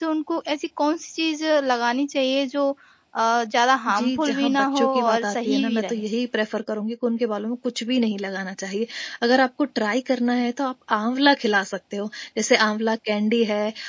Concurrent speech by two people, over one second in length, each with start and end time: 4.0-6.0

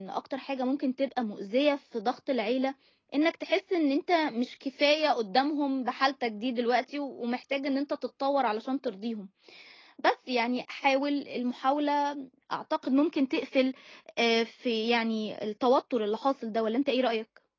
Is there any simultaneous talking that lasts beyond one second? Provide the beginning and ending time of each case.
none

